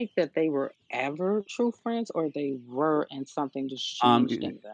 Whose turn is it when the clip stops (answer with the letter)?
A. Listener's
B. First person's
A